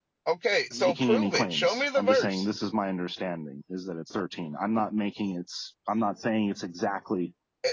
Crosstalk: present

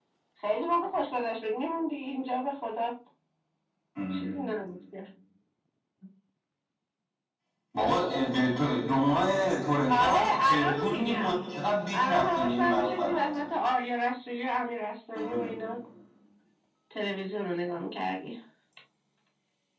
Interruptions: present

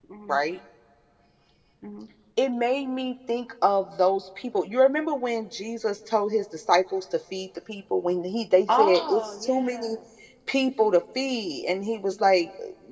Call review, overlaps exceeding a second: present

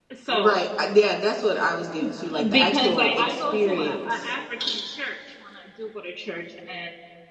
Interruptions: present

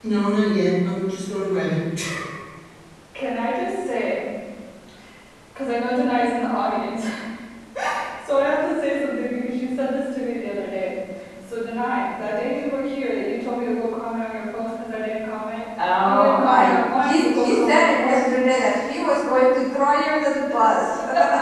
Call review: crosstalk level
present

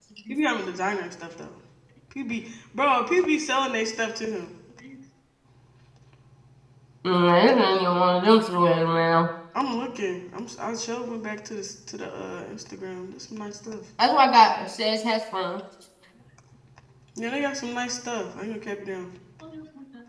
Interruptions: none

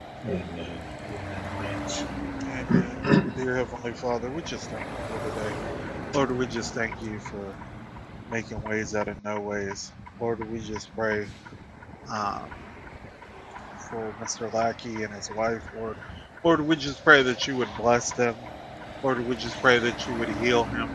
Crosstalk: none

